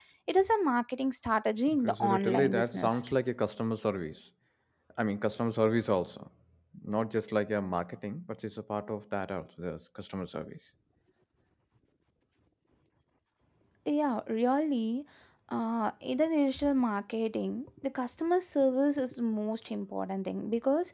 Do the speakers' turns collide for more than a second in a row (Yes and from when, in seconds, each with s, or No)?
Yes, from 1.7 s